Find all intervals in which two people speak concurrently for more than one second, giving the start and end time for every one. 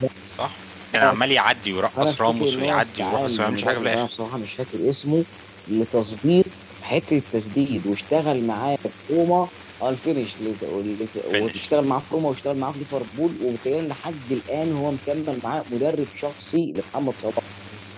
2.0-4.1

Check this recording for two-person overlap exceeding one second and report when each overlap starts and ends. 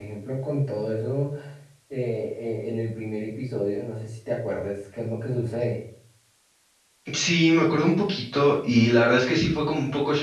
none

